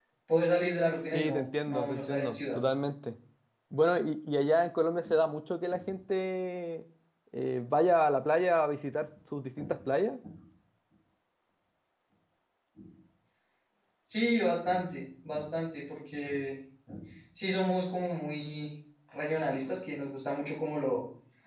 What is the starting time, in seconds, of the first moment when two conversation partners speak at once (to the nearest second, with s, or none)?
1 s